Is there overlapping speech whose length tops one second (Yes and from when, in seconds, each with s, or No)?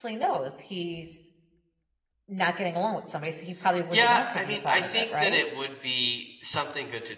Yes, from 3.9 s